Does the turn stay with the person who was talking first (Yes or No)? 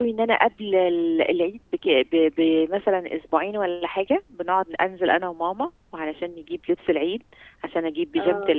Yes